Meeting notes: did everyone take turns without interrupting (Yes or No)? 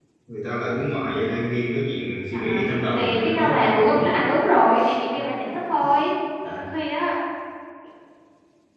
No